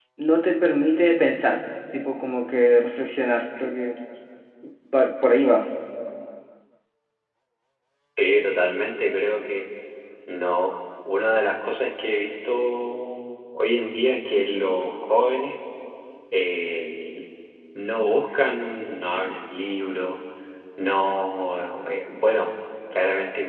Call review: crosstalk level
none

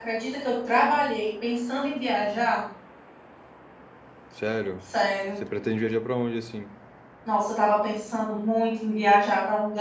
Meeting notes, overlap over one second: none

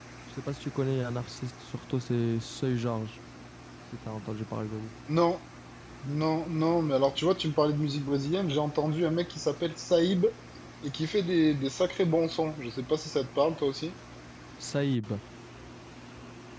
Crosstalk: none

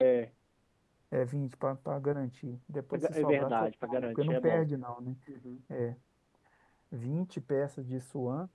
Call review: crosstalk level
present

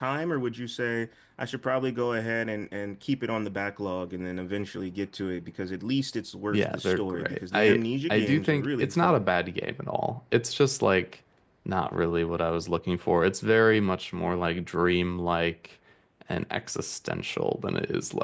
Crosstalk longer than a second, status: present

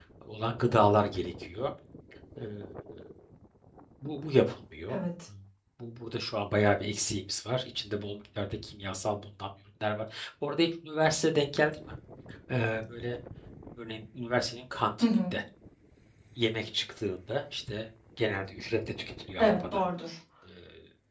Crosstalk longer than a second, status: none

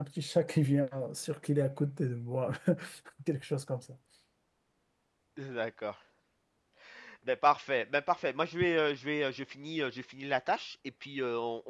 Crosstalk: none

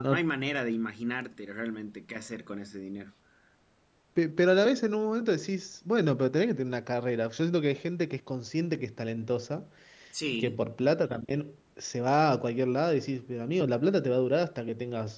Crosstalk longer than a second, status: none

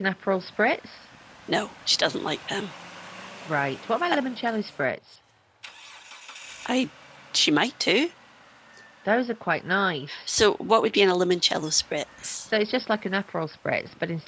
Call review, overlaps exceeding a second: none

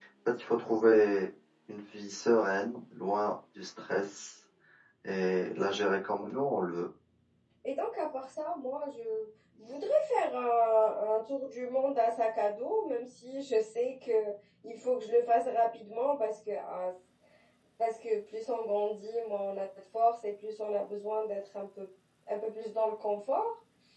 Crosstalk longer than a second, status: none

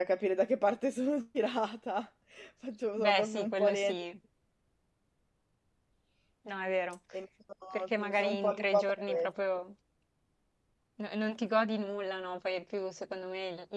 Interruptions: present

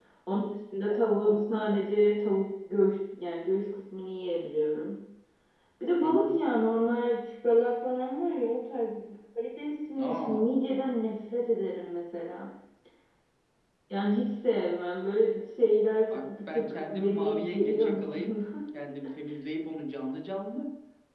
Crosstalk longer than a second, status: present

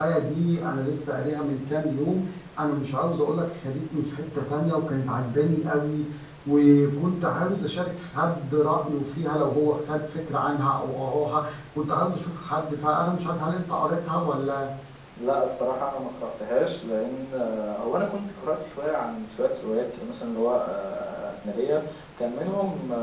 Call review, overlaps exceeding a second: none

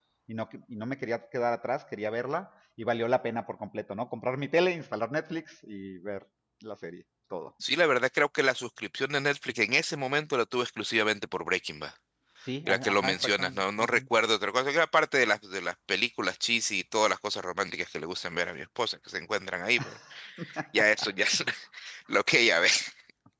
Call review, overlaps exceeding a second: present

